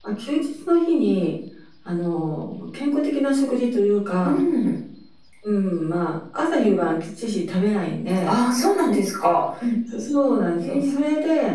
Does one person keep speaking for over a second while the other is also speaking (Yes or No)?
No